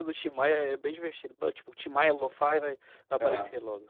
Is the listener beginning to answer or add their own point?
Yes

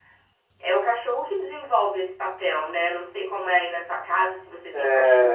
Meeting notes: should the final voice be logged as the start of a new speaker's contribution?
Yes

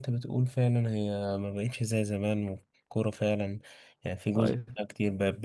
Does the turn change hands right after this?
No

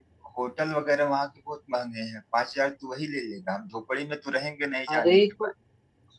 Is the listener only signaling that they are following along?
No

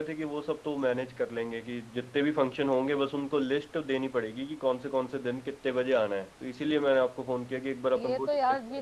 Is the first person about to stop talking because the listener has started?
Yes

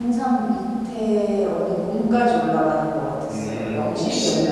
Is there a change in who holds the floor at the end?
Yes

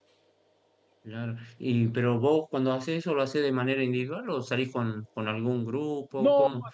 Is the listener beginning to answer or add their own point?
Yes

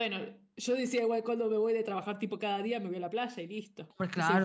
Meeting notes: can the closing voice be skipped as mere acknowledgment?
No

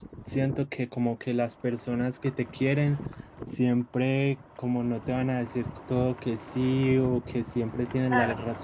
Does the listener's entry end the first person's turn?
No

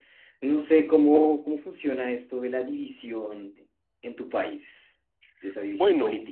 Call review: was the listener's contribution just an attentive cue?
No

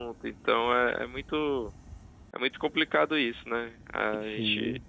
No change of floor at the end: Yes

